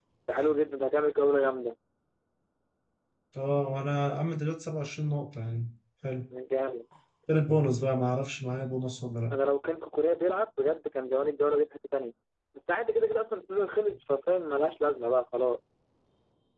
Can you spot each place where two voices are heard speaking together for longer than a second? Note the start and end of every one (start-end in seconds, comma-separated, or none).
none